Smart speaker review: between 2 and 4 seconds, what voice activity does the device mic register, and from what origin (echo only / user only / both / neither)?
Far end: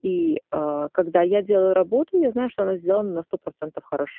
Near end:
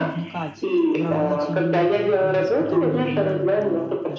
both